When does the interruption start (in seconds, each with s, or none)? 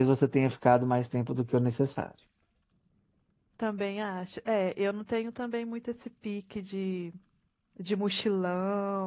none